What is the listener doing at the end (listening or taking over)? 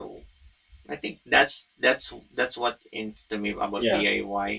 listening